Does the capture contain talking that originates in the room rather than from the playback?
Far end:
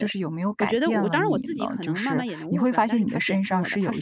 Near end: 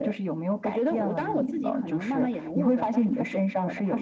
No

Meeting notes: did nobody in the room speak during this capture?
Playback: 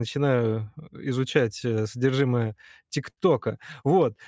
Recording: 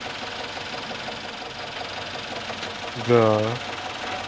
No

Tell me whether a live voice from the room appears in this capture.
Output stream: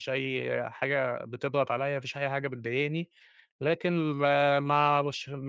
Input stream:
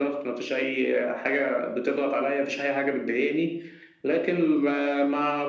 No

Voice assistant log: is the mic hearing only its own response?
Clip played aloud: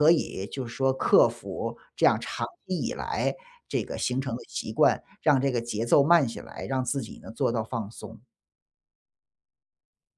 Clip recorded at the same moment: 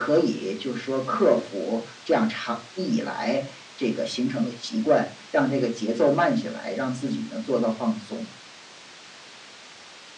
Yes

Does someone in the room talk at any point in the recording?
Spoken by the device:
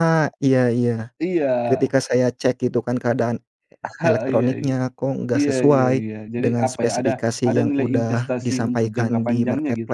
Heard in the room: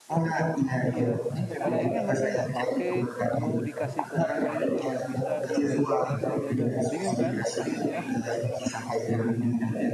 Yes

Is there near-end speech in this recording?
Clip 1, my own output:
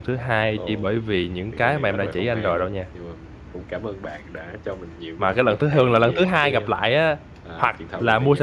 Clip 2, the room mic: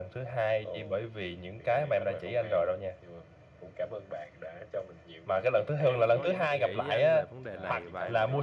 Yes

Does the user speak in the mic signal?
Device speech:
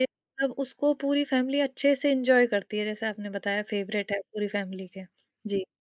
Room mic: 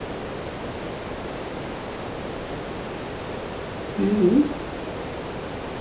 Yes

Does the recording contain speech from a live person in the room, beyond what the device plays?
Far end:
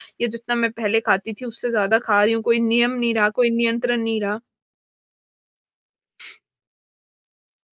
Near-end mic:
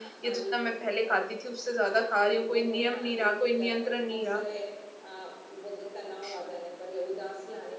Yes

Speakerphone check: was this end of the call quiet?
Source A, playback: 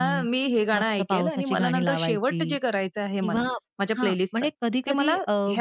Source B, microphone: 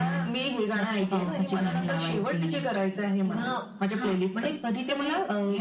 Yes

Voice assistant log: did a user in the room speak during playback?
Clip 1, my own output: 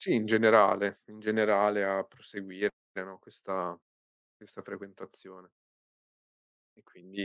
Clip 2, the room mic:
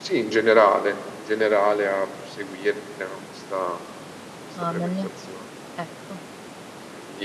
Yes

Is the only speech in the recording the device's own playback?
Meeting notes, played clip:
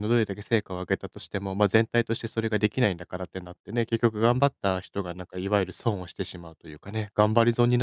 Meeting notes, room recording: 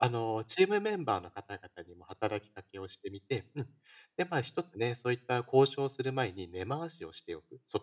No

